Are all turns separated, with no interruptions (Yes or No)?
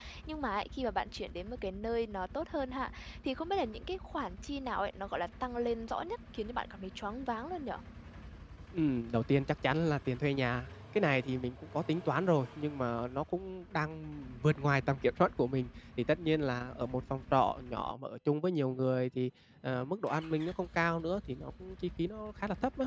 Yes